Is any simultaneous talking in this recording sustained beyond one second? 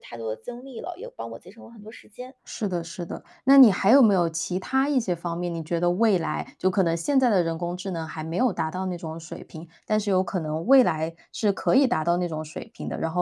No

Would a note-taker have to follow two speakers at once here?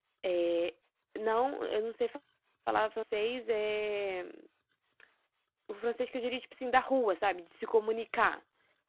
No

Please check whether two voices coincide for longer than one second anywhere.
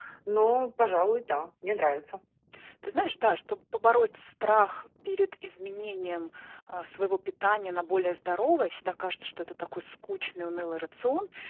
No

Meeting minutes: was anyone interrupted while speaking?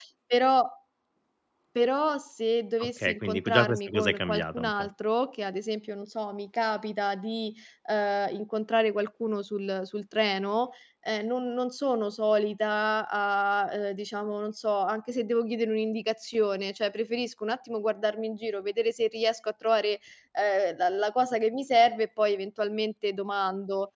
Yes, from 2.8 s

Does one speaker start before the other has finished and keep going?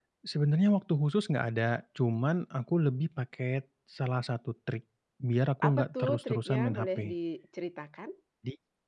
Yes, from 5.6 s

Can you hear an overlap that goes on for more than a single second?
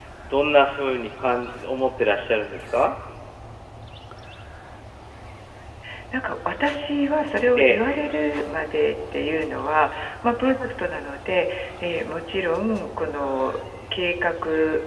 No

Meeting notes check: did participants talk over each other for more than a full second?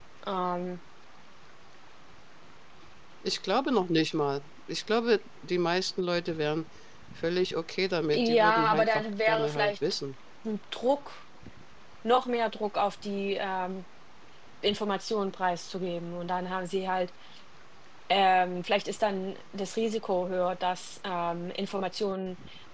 Yes, from 8.1 s

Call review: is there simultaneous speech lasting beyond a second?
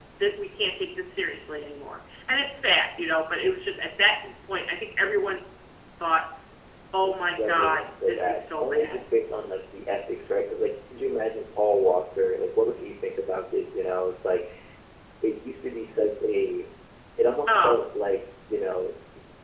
Yes, from 7.0 s

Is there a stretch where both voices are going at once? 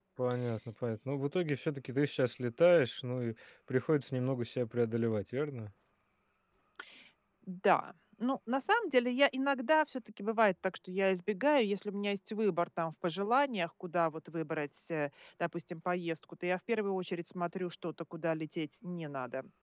No

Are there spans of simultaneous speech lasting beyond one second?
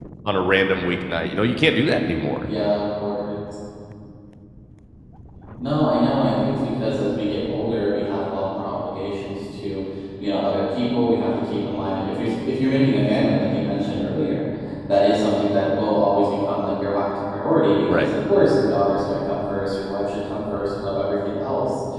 No

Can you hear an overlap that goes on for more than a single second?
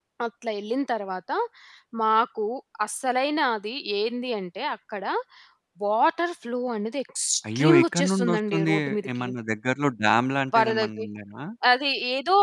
Yes, from 7.4 s

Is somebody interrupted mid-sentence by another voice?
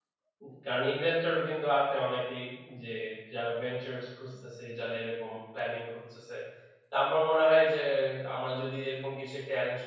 No

